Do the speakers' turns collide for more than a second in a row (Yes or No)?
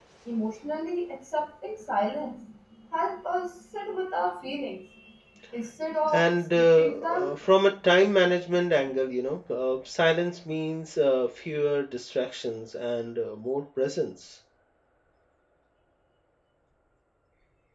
Yes